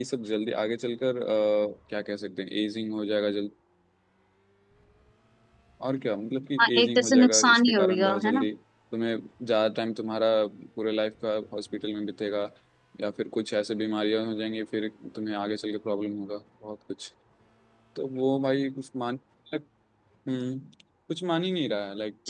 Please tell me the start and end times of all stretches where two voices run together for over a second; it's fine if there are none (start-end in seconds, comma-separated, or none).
6.8-8.5